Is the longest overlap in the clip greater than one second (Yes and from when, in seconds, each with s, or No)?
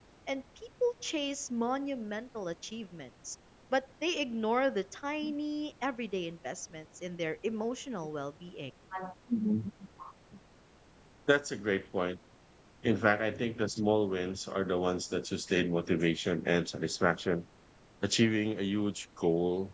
No